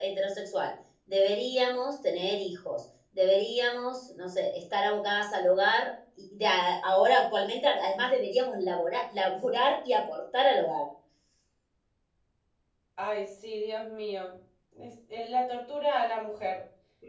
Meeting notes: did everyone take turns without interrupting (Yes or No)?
Yes